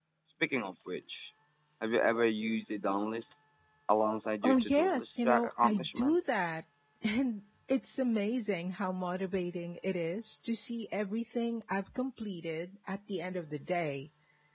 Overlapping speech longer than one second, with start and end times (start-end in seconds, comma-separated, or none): 4.4-6.2